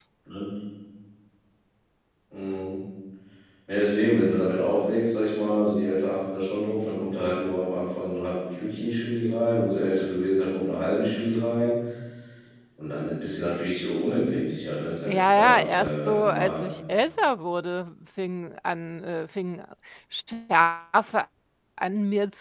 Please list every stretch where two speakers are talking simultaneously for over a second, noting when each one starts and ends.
15.1-16.6

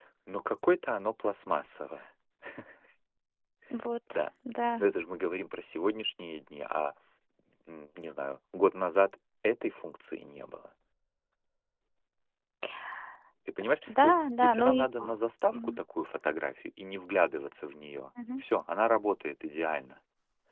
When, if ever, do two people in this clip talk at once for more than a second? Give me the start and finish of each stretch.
13.6-15.1

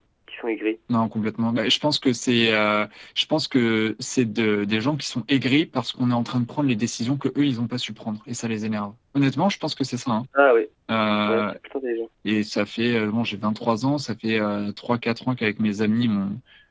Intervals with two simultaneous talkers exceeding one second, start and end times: none

